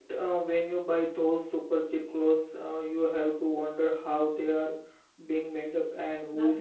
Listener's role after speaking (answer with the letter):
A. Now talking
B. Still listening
A